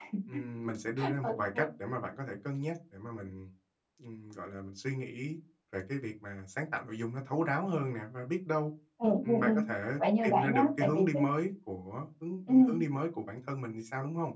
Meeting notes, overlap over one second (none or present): present